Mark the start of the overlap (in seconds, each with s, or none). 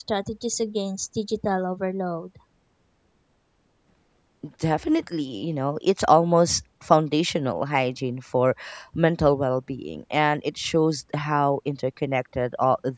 none